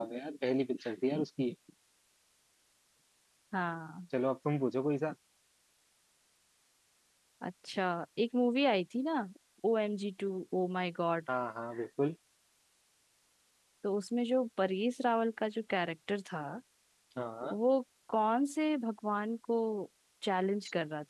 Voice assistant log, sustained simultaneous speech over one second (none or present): none